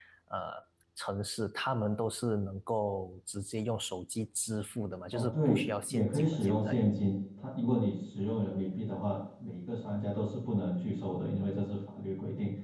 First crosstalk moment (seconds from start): 5.1 s

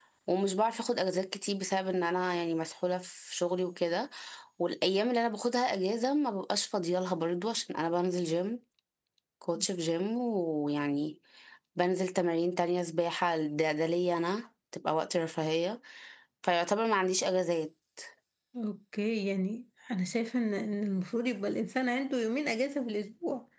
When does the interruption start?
none

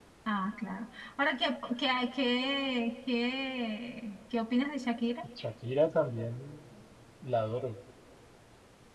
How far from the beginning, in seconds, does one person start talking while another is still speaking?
none

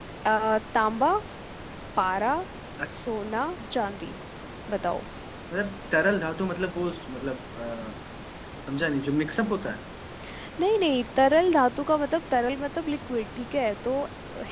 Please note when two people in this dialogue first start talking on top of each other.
none

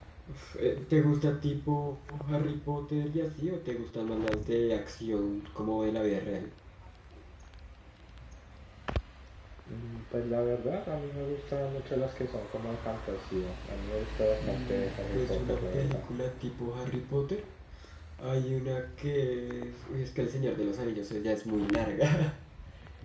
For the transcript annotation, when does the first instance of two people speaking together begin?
14.4 s

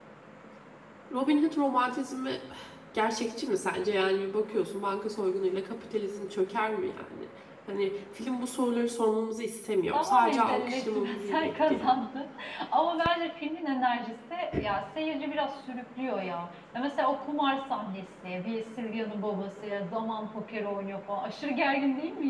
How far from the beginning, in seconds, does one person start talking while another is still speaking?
9.9 s

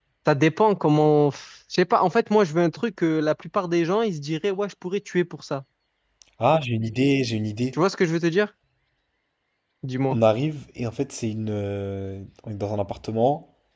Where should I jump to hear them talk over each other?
none

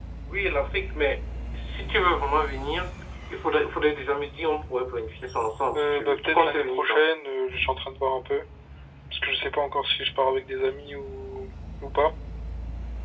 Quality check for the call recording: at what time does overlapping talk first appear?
5.7 s

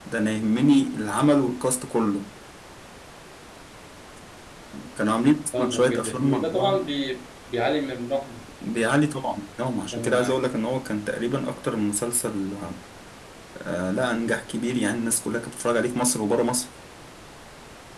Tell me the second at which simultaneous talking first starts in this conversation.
5.6 s

